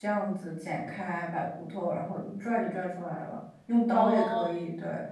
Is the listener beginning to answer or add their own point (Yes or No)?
No